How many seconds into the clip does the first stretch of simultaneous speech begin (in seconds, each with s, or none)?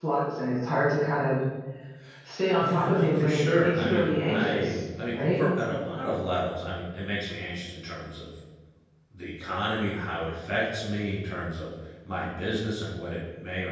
2.6 s